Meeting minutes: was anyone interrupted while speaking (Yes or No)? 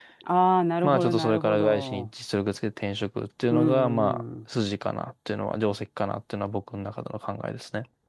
Yes